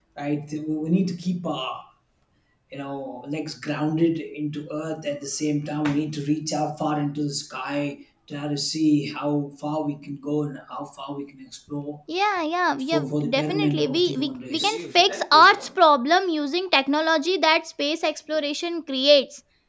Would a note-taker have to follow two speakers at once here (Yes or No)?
Yes